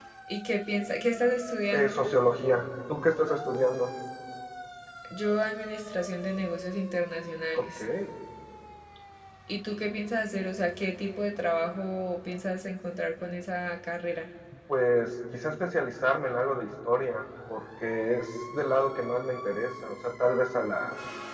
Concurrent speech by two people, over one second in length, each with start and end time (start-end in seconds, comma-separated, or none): none